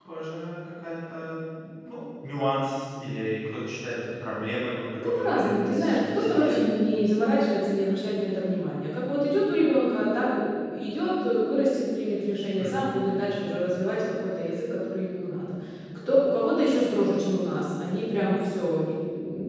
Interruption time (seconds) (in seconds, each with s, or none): 5.0 s